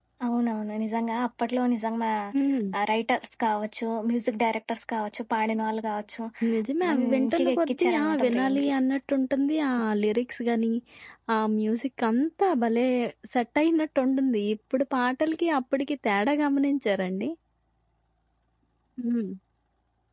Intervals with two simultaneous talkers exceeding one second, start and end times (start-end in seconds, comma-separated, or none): 6.9-8.7